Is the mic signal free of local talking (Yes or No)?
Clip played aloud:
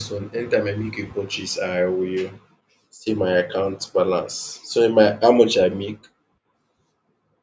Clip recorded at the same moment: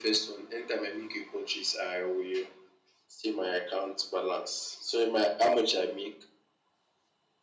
Yes